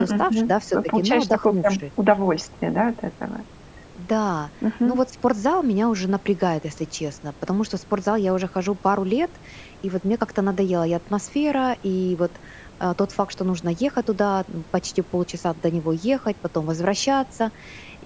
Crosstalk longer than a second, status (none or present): present